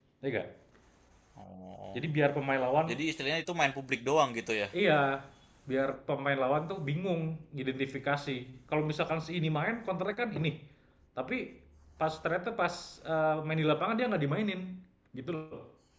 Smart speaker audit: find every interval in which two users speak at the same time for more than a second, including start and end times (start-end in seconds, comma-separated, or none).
none